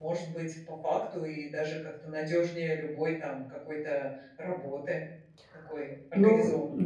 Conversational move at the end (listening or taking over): taking over